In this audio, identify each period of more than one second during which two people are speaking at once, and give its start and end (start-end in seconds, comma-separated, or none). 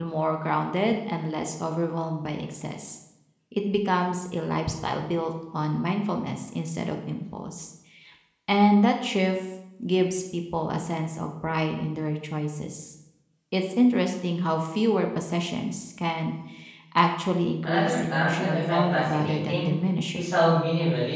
17.7-19.7